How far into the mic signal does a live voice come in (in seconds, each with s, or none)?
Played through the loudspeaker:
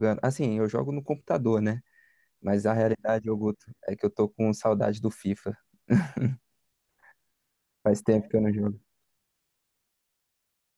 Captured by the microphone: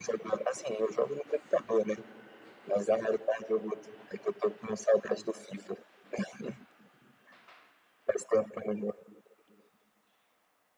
none